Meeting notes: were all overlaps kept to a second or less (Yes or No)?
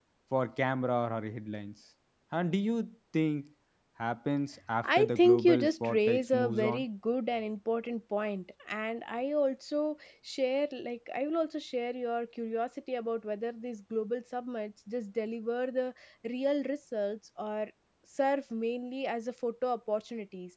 No